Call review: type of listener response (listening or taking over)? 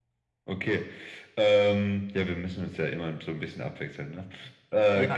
taking over